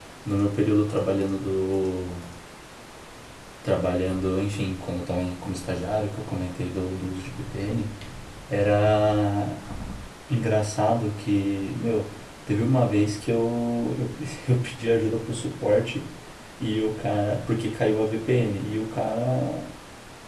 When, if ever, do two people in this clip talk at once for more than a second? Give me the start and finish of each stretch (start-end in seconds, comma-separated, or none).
none